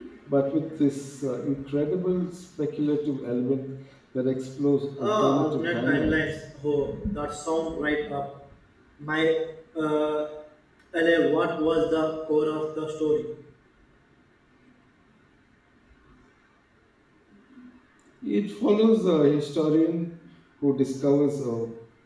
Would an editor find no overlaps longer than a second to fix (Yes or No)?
No